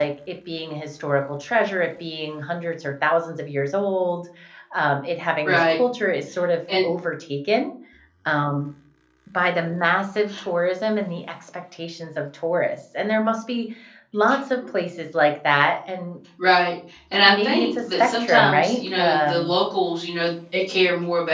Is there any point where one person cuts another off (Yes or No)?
Yes